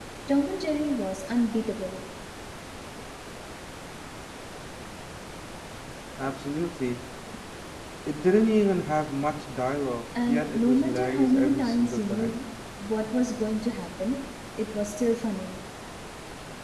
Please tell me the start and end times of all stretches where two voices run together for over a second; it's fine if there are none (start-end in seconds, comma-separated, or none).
10.3-12.4